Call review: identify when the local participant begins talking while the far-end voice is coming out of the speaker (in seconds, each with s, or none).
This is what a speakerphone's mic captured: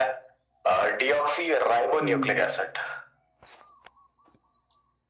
2.0 s